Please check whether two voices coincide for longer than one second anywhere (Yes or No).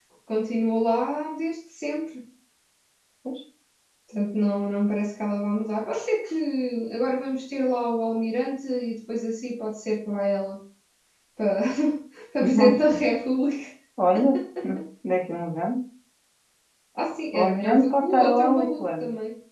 Yes